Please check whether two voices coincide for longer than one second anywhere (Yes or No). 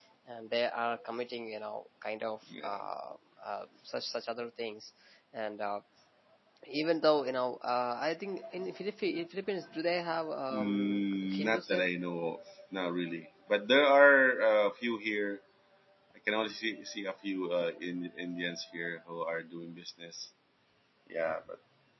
Yes